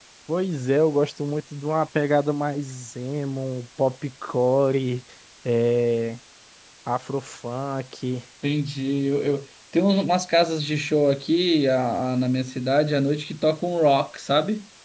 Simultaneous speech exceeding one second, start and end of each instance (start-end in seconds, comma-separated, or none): none